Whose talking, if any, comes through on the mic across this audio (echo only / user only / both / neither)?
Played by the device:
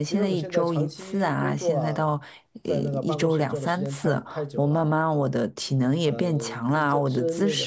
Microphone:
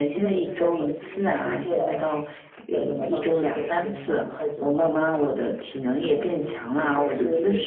echo only